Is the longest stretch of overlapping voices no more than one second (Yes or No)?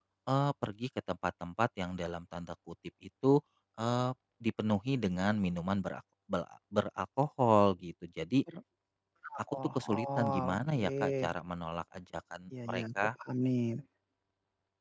No